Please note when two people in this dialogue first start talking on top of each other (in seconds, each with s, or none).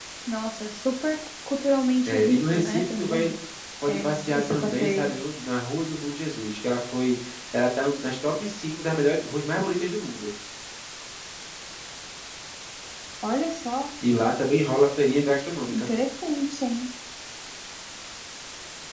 2.0 s